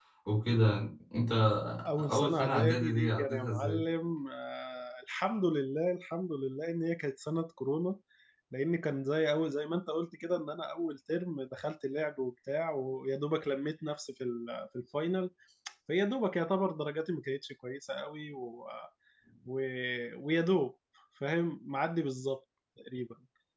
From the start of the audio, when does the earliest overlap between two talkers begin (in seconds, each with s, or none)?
2.1 s